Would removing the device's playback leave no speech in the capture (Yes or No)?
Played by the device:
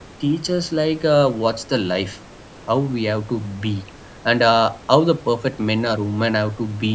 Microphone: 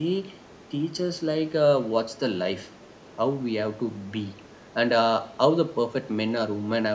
Yes